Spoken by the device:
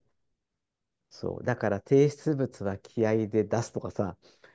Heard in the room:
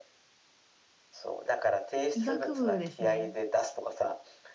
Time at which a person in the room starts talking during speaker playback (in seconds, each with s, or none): 2.1 s